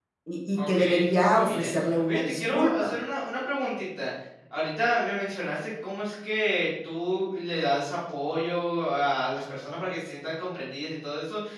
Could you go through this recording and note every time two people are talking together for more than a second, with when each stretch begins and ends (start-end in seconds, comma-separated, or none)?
0.6-2.9